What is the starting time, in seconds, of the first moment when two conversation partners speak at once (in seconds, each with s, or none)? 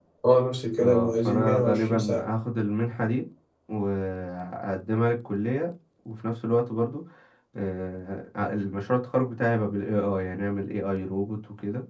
0.8 s